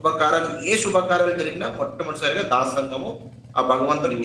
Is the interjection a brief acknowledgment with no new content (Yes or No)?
No